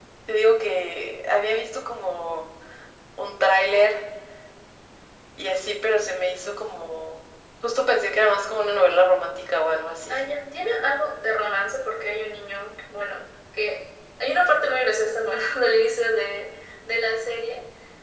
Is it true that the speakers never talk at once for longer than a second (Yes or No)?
Yes